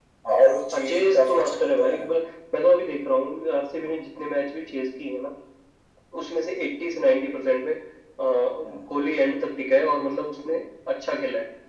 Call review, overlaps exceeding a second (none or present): present